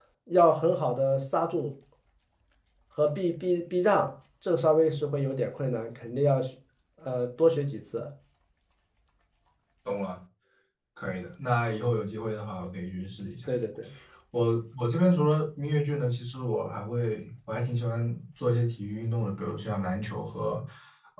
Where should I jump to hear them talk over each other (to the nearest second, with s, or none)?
none